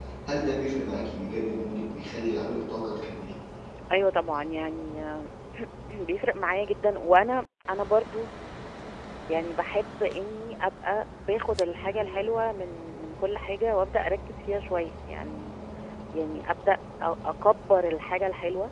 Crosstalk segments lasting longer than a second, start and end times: none

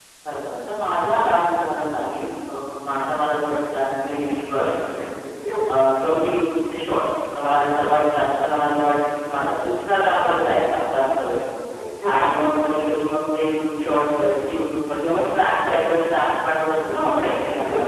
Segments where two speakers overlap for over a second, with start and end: none

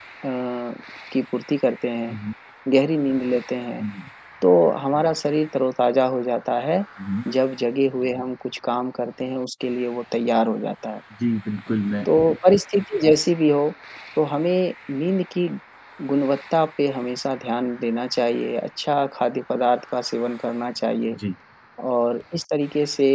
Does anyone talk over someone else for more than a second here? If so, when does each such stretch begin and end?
none

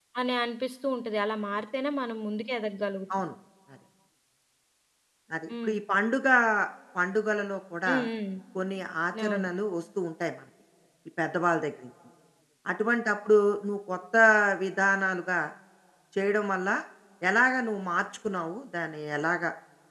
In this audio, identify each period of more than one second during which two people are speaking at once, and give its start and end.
none

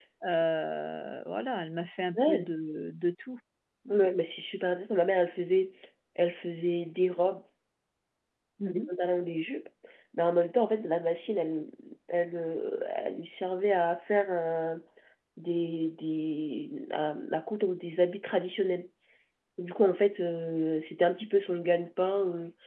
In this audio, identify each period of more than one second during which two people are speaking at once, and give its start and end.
none

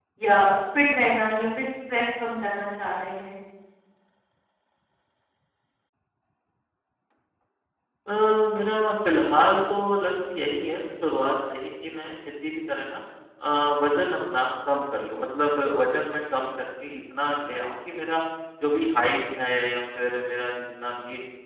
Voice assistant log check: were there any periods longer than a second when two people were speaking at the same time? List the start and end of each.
none

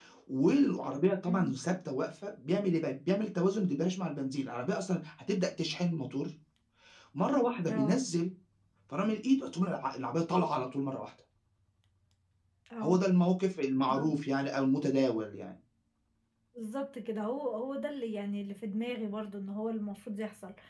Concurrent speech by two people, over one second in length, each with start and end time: none

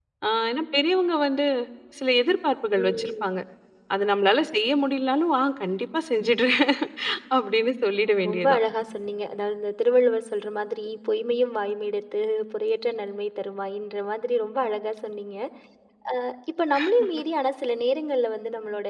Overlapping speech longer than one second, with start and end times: none

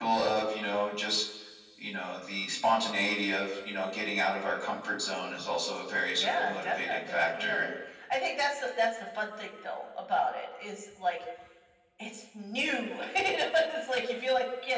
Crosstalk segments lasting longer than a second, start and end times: 6.1-7.7

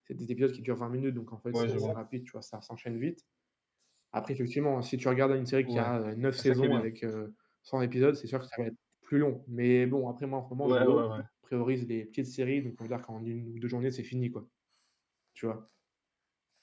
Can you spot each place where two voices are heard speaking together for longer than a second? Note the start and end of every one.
none

